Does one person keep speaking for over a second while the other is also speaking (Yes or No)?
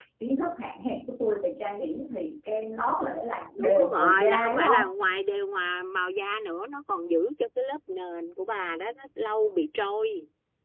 Yes